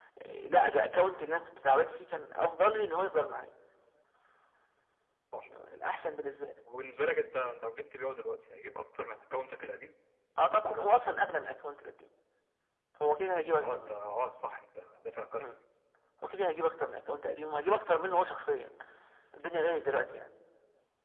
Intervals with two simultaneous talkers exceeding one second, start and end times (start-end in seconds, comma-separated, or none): none